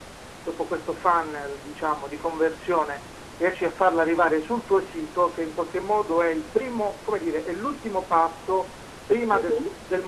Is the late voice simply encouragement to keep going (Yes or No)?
Yes